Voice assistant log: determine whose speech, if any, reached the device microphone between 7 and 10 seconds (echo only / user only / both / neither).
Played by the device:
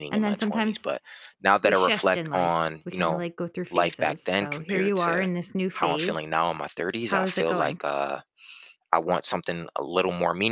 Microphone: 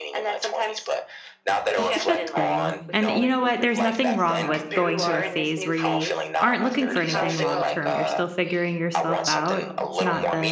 both